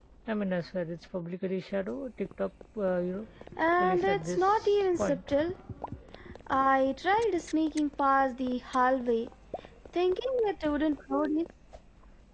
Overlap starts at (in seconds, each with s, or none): 3.8 s